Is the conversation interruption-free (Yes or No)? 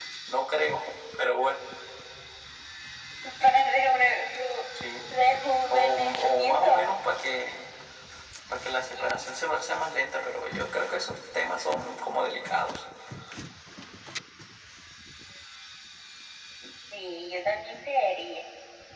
No